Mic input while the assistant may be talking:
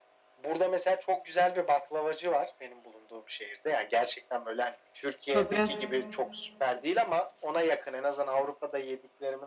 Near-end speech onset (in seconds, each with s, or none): 5.3 s